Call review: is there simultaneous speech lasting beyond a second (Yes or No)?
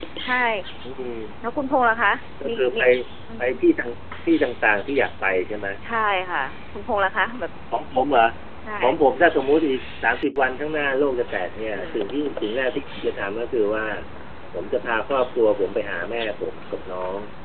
No